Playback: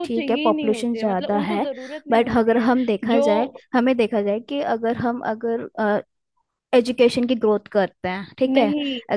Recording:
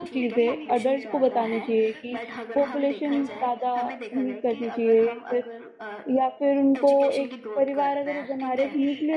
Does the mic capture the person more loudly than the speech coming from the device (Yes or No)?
Yes